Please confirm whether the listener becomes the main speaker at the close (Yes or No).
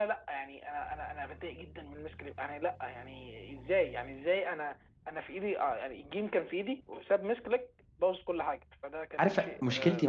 Yes